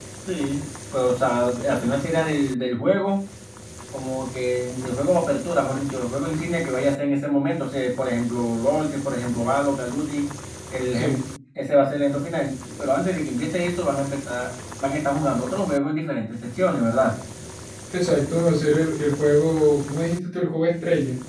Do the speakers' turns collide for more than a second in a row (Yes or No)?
No